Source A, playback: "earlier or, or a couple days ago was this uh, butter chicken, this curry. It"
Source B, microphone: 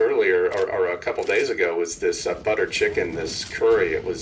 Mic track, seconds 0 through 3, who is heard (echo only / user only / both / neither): echo only